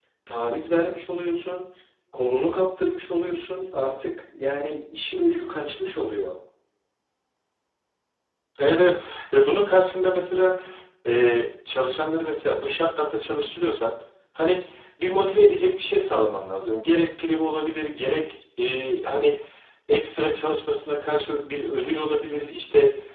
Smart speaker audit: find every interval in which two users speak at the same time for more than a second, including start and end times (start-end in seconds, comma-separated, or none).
none